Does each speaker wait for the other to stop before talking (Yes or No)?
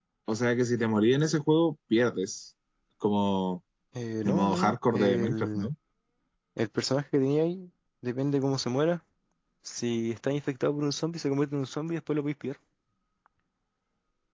No